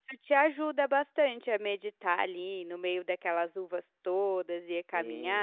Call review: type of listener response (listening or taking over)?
taking over